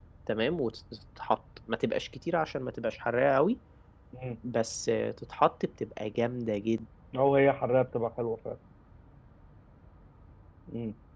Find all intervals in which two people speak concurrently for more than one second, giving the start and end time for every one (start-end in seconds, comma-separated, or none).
none